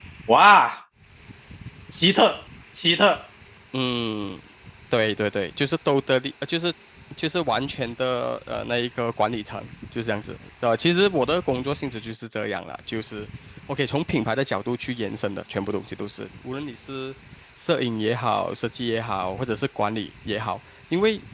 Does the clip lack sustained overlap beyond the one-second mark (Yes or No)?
Yes